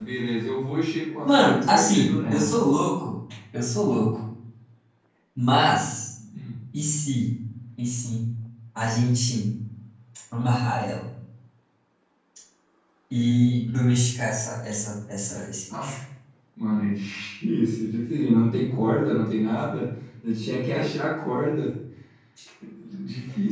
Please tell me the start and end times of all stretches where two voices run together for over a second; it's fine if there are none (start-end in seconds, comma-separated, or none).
1.2-2.5